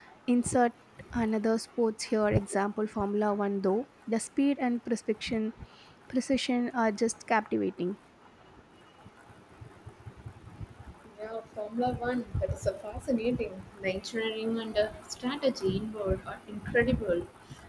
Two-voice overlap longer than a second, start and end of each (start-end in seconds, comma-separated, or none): none